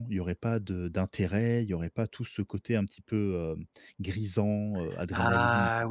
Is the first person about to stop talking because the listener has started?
Yes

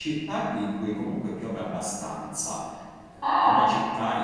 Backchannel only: Yes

